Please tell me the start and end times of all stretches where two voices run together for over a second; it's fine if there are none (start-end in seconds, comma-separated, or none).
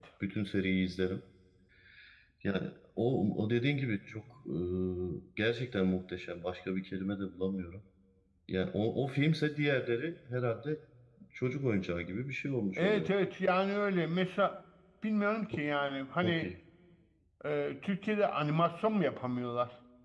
none